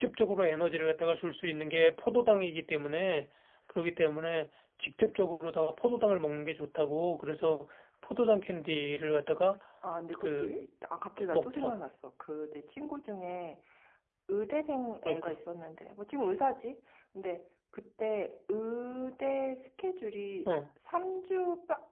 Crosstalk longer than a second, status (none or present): none